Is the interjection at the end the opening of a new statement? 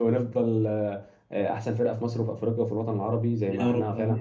Yes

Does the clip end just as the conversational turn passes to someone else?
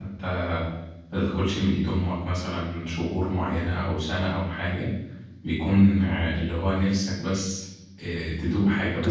Yes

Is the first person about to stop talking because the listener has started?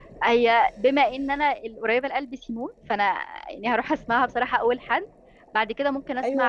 Yes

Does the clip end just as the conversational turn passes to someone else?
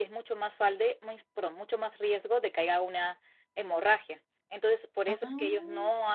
No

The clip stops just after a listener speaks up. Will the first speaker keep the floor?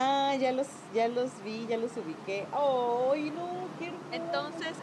No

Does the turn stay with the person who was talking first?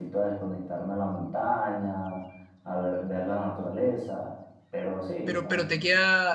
No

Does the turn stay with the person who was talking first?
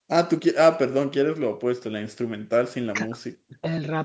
No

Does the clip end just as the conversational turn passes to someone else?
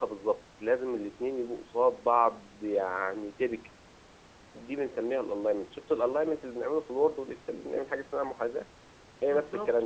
Yes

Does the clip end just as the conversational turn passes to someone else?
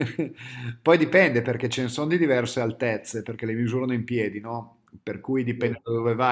No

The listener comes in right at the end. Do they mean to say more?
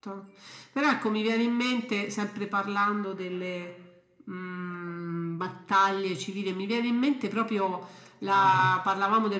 No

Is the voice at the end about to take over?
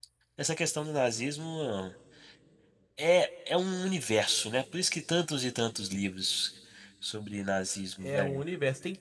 Yes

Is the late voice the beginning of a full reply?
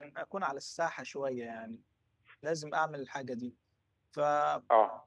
No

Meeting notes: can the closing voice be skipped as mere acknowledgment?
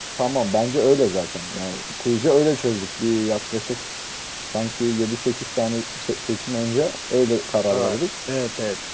No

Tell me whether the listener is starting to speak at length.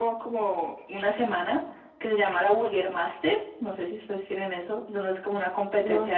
No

